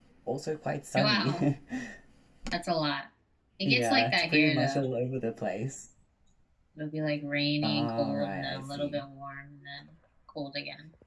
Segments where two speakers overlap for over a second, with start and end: 3.6-4.8, 7.6-9.0

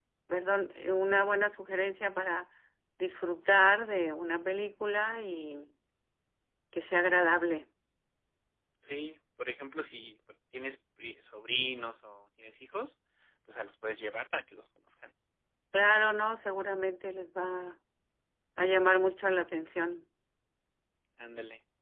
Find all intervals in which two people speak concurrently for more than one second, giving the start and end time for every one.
none

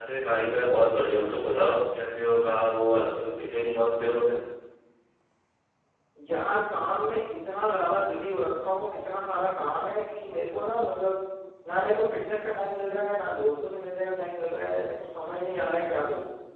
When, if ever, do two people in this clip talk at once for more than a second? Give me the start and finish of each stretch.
none

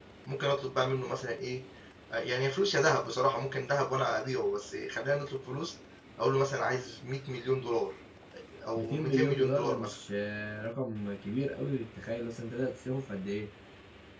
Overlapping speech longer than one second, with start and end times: 8.8-10.0

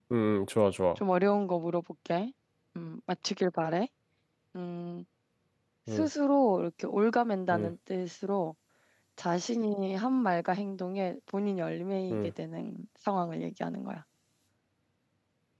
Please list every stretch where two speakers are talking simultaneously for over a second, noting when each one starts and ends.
none

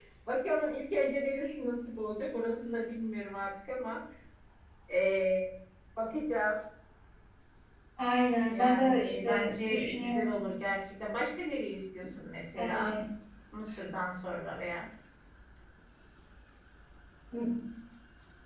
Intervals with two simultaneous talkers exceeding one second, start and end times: 8.5-10.5

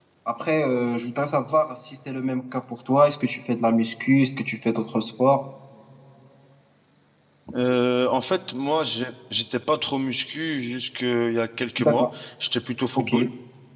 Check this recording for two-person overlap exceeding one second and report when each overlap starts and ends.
none

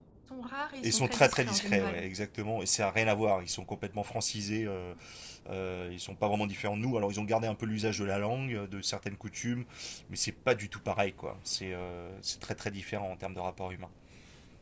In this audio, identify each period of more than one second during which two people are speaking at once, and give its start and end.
0.8-2.1

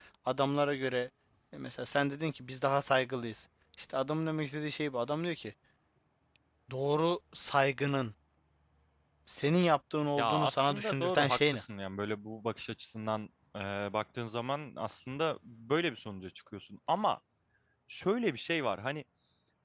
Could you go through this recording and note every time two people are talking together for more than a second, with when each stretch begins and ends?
10.2-11.6

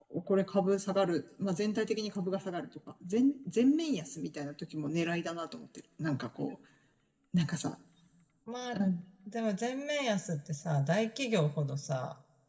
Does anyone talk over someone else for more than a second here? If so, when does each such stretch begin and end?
none

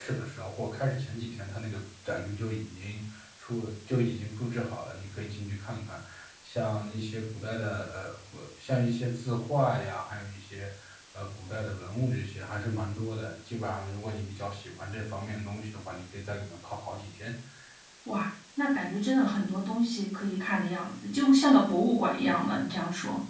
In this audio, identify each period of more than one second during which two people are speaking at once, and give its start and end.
none

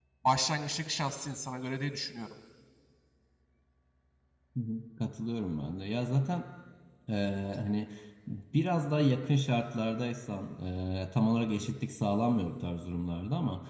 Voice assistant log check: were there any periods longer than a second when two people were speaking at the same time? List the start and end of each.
none

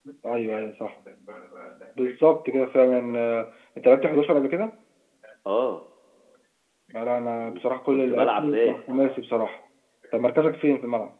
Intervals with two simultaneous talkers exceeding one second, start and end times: 7.4-8.8

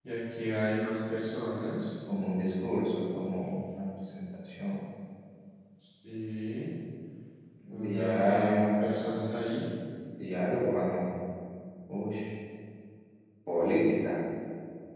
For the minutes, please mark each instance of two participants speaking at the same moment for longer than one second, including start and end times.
7.8-9.2

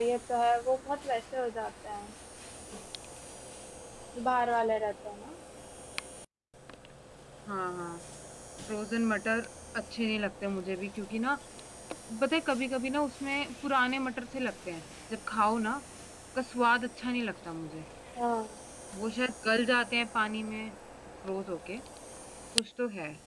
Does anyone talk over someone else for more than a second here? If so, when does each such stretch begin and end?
none

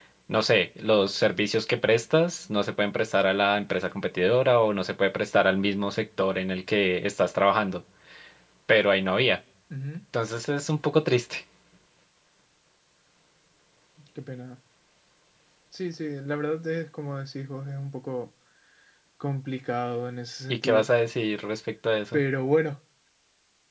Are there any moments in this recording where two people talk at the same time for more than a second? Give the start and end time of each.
none

